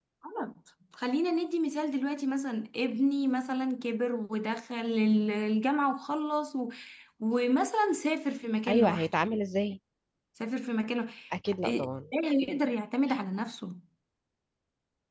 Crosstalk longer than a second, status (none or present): none